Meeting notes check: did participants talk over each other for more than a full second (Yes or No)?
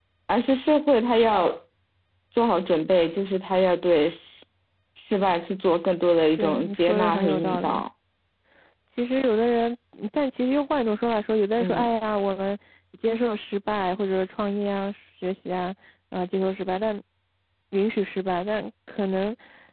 Yes